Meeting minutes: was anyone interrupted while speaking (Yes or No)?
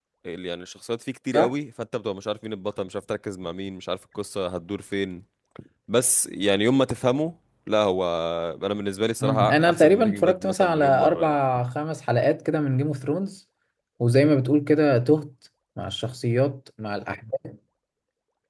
Yes